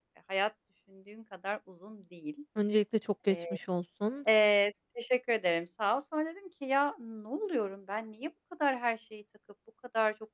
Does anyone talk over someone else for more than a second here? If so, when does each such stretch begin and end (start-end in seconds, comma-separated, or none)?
none